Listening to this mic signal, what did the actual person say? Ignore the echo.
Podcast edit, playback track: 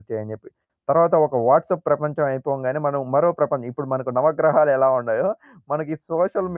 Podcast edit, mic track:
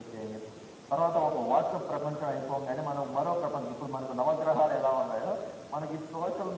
none

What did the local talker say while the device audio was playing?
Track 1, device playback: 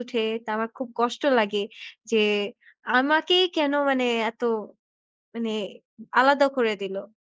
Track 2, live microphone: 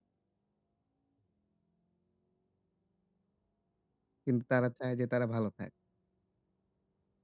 কিন্তু তারা চায় যে, তারা ভালো থাক।

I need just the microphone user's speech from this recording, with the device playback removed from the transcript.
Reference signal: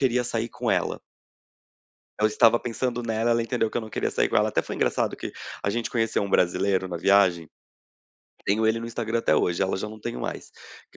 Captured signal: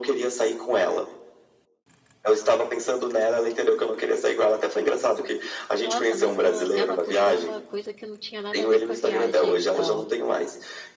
Nossa mas ela ela puxou uma coisa que não tinha nada a ver com a viagem então.

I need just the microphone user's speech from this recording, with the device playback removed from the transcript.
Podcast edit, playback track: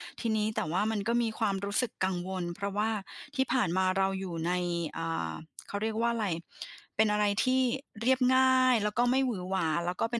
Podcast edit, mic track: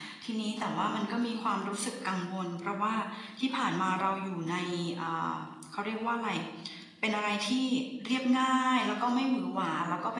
none

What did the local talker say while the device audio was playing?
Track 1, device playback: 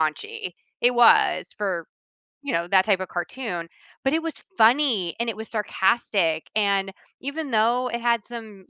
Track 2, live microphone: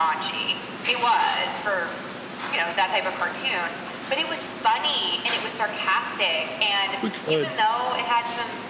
We could.

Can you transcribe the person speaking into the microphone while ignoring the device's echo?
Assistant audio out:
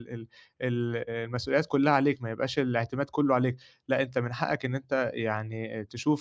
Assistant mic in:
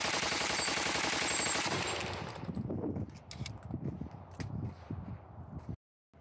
none

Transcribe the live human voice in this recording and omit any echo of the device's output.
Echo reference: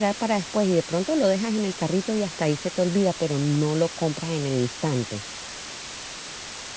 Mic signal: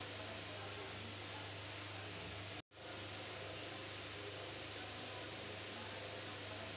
none

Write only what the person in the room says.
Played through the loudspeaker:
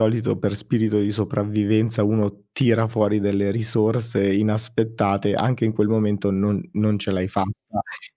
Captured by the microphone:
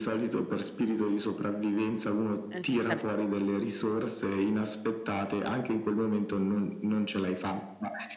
Esattame

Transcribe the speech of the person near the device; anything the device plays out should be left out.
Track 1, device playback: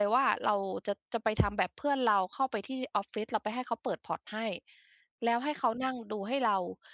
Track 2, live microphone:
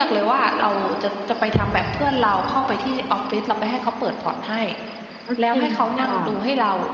ก็จริงค่ะ

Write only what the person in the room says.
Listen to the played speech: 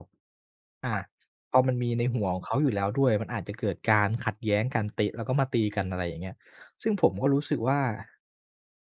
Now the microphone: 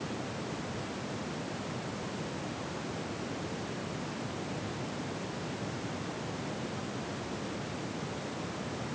none

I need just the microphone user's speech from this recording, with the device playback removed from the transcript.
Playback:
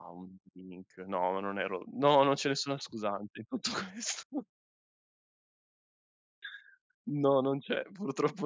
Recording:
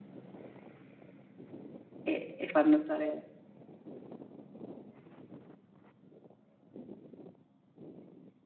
e e far notare

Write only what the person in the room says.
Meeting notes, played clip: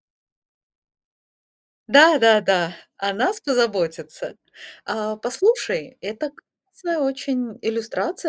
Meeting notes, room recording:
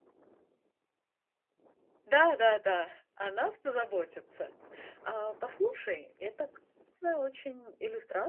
none

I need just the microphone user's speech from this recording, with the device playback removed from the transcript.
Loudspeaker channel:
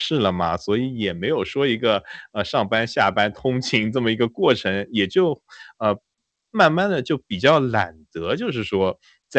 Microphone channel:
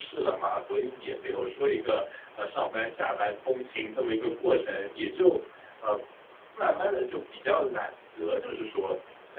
none

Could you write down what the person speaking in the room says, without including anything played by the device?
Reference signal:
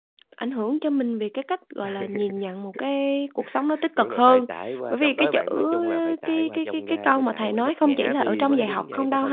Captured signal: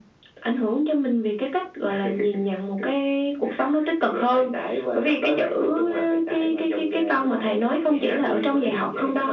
none

